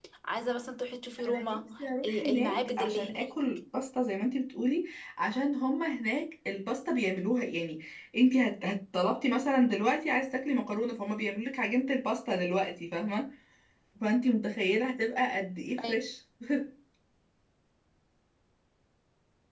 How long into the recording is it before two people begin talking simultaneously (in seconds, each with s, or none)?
1.3 s